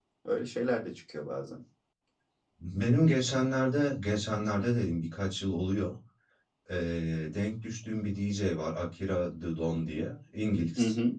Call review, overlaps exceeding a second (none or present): none